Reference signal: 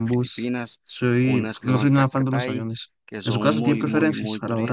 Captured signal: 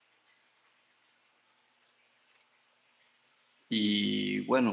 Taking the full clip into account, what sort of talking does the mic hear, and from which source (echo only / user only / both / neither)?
user only